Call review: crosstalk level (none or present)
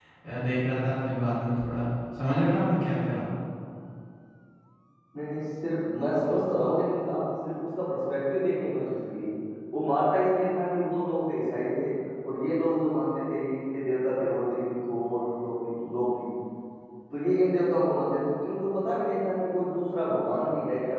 none